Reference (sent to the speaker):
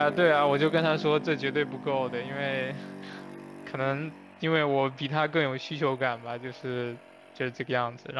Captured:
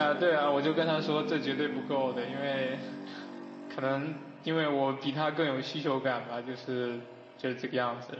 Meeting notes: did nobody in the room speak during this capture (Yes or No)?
Yes